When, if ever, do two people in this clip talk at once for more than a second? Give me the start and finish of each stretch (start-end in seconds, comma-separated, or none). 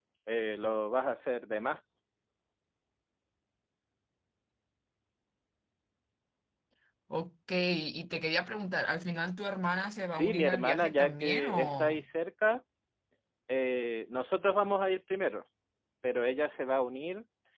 10.1-12.0